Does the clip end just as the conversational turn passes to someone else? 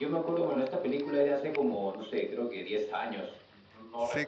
Yes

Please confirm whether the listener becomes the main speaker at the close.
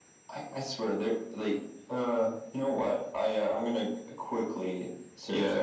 Yes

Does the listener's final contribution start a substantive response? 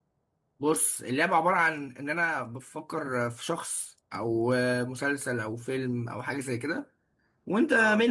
No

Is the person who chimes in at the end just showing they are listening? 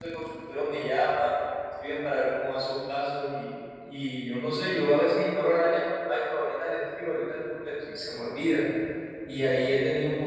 Yes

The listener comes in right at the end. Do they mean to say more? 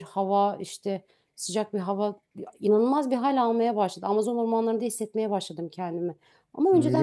Yes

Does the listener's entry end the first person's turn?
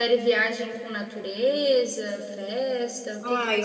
Yes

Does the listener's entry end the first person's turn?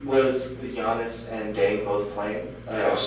Yes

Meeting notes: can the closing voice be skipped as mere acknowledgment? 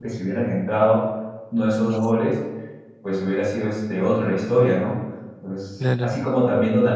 Yes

